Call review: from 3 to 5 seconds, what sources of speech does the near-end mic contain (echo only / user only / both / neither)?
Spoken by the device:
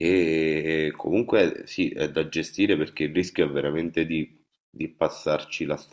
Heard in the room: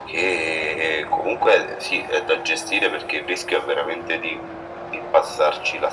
echo only